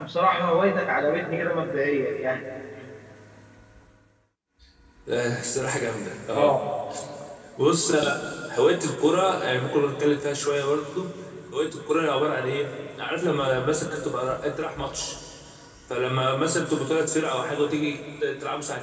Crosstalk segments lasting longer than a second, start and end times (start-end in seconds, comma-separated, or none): none